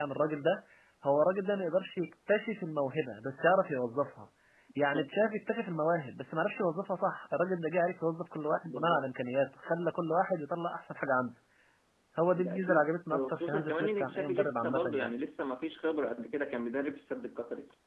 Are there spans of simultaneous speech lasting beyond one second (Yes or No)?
Yes